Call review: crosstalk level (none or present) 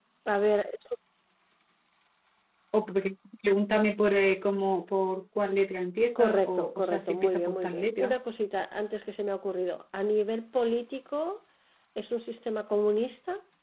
present